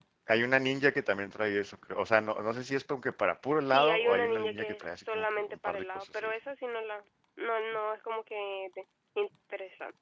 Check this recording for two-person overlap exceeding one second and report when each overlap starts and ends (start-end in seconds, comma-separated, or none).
3.6-6.3